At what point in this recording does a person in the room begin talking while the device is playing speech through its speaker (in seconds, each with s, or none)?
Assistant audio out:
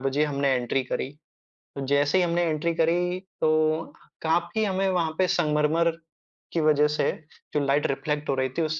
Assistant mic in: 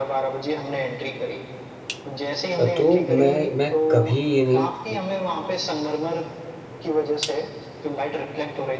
2.6 s